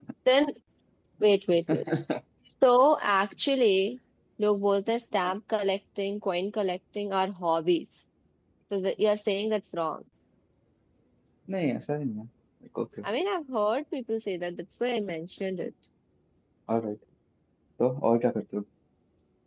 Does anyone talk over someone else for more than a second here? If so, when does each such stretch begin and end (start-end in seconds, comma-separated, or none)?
none